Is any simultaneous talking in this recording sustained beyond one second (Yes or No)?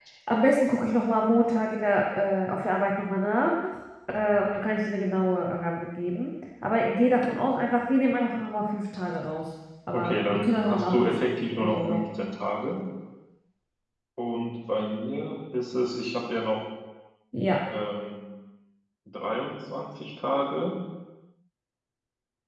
Yes